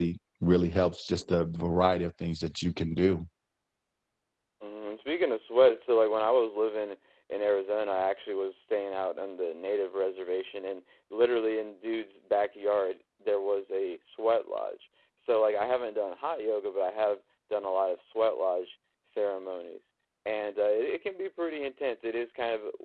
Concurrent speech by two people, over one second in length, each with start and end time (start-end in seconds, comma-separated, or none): none